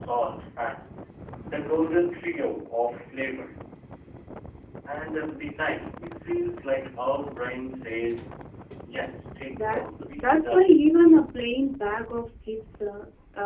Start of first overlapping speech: 9.5 s

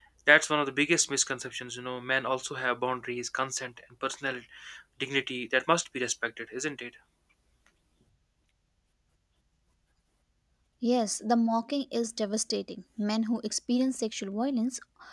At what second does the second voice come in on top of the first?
none

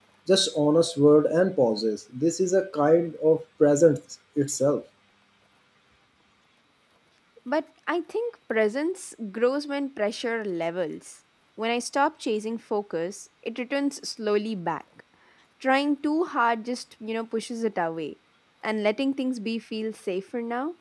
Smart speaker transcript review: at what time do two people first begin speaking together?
none

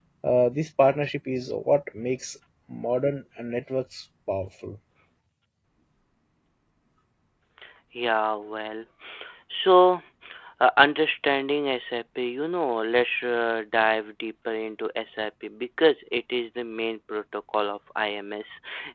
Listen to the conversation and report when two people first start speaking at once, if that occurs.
none

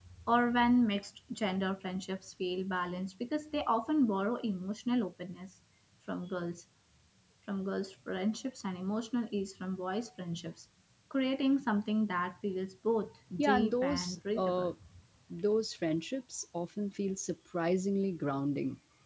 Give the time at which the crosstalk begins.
13.4 s

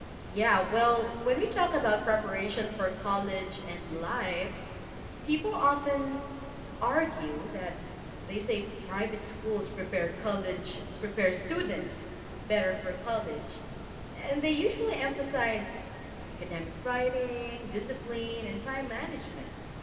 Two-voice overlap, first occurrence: none

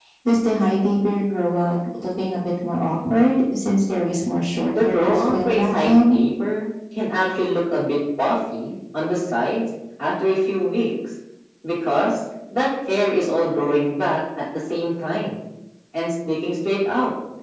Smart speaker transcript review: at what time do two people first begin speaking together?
4.6 s

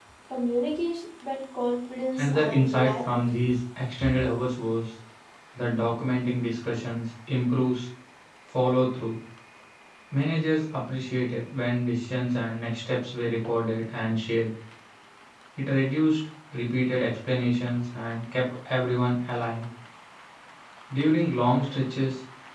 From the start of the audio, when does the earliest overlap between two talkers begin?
2.2 s

